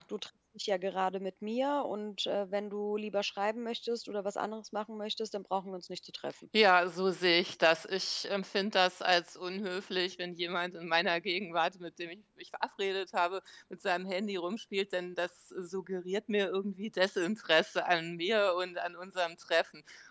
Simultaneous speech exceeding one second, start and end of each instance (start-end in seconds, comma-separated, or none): none